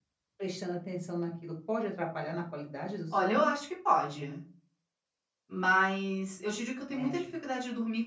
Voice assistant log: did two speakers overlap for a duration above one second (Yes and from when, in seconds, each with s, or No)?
No